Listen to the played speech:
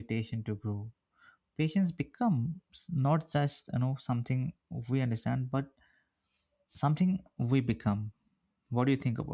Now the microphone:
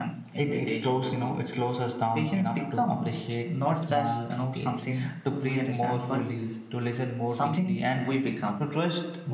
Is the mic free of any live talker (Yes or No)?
No